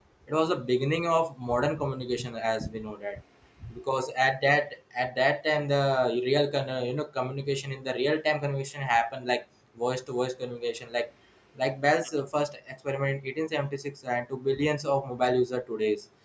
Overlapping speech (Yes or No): No